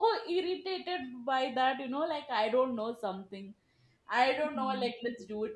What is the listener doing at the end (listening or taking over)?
listening